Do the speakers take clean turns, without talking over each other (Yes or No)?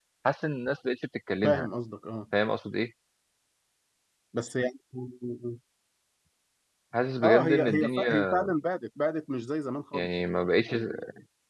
No